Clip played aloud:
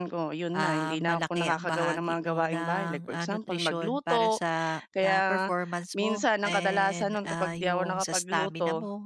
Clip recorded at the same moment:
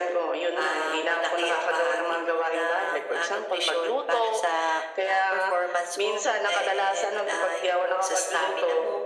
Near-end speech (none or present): none